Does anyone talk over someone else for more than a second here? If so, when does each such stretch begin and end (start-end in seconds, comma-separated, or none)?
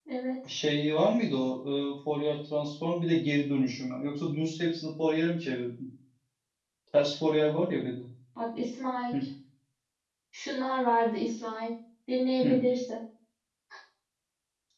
none